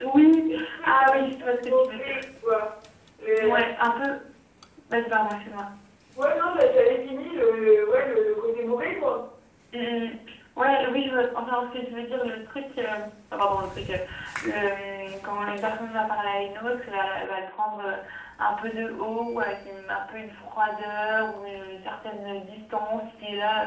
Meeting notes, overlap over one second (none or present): present